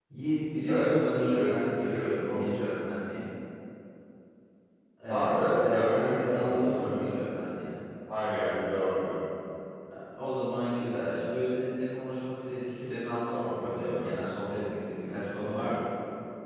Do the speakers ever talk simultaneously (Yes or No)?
Yes